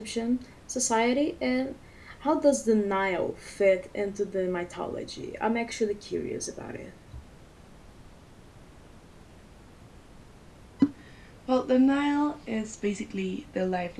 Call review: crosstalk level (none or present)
none